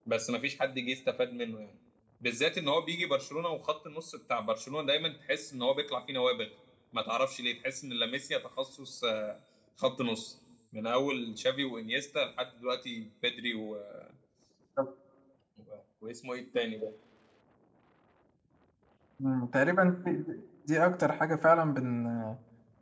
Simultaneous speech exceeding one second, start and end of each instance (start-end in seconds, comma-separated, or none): none